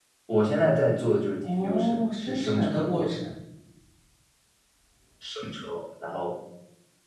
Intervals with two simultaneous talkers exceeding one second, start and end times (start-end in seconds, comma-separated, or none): 1.4-3.2